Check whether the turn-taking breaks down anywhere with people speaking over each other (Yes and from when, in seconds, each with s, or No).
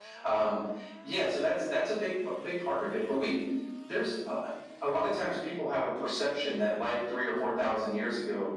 No